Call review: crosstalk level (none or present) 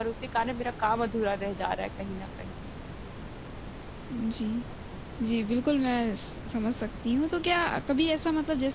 none